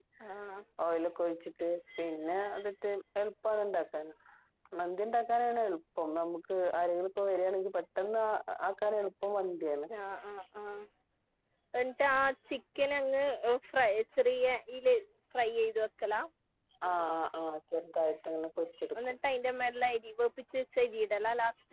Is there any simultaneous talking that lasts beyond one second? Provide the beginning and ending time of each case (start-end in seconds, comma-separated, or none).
none